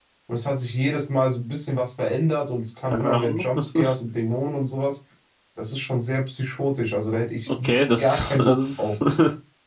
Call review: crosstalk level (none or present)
present